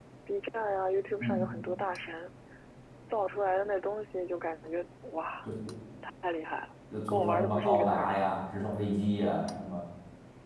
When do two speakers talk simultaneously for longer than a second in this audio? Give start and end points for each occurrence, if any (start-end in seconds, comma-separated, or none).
7.1-8.3